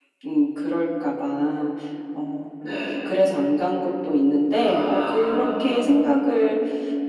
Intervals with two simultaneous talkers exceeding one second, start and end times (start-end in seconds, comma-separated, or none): 4.6-5.9